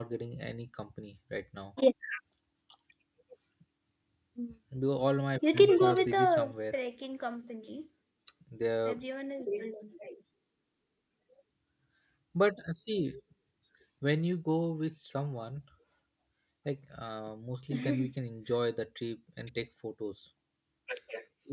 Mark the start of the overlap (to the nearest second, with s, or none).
6 s